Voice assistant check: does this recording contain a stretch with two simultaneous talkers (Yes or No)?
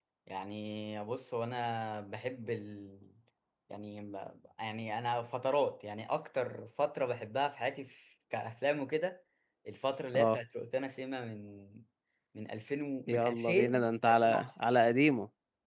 Yes